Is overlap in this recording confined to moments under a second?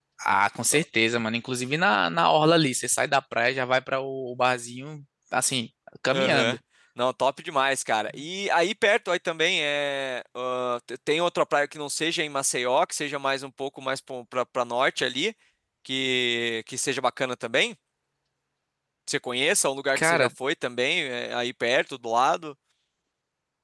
Yes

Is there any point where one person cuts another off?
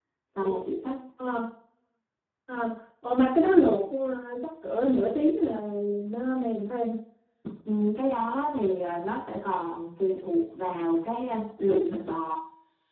No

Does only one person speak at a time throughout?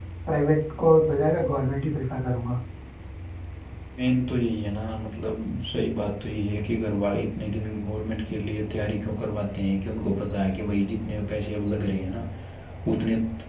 Yes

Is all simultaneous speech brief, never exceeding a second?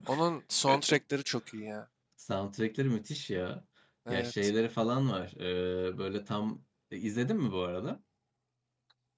Yes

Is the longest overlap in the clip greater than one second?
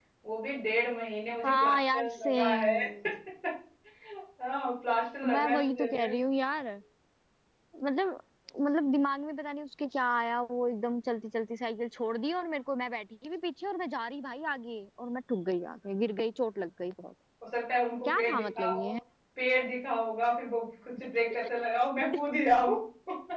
Yes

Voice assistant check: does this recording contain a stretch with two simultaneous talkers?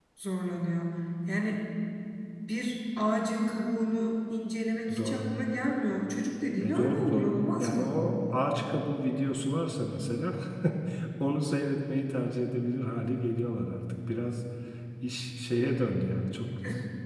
Yes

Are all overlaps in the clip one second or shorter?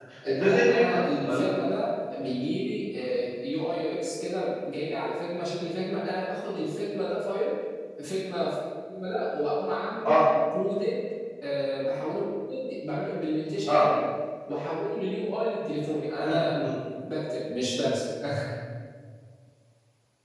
No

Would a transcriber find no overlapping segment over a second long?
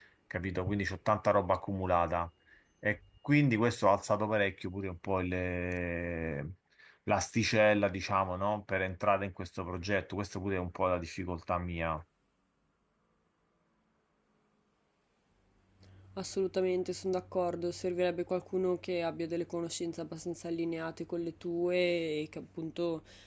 Yes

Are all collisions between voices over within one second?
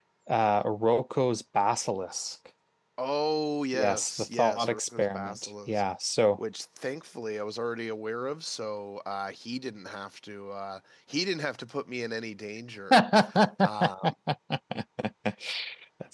No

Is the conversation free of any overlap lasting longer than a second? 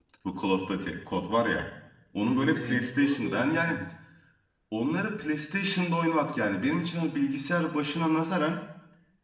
No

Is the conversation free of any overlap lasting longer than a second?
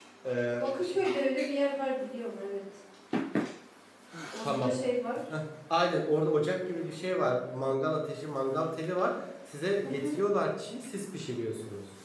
Yes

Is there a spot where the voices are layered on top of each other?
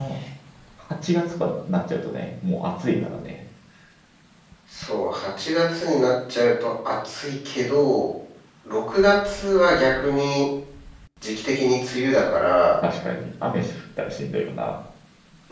No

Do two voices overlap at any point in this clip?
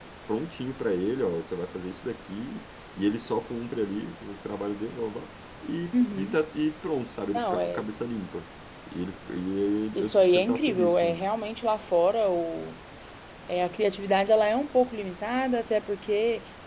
Yes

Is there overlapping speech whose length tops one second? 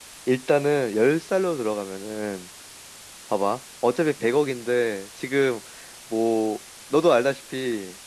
No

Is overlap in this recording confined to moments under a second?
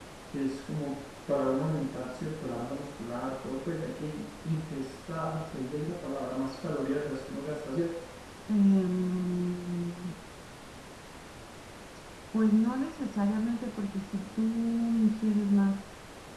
Yes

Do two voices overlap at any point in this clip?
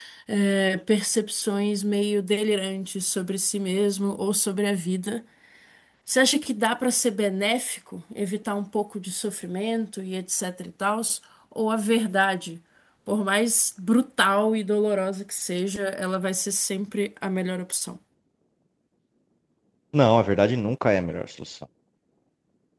No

